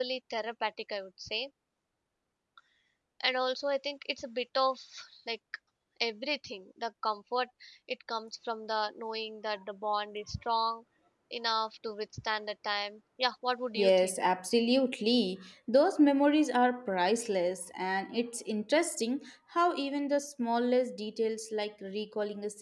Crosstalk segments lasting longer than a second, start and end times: none

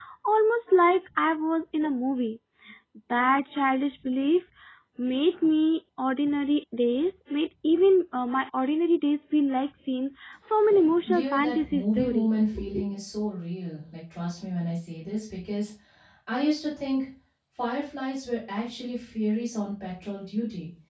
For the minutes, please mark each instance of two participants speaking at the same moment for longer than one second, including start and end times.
11.1-12.3

